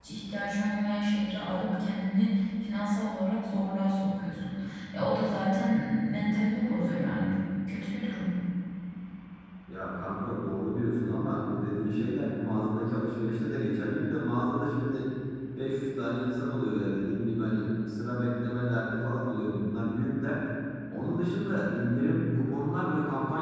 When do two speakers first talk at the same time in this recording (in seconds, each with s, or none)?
none